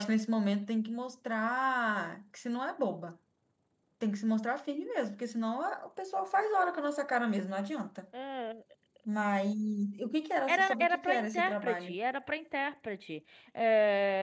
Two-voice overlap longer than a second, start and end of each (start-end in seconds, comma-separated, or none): 10.5-11.9